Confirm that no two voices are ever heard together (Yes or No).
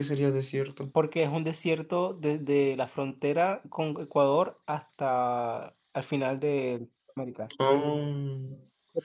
Yes